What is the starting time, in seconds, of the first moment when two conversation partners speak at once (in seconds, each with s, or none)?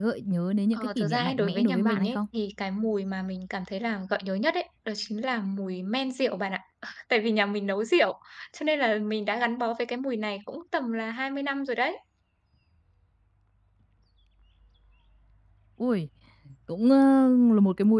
0.8 s